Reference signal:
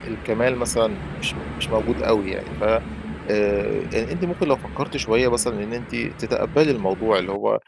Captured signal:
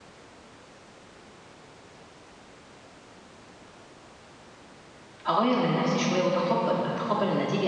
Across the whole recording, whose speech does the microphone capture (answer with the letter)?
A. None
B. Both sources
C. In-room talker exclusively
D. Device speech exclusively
C